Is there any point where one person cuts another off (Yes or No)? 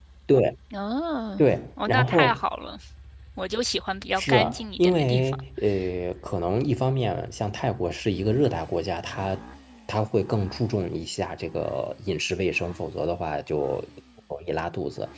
Yes